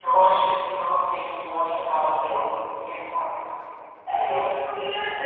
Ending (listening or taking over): taking over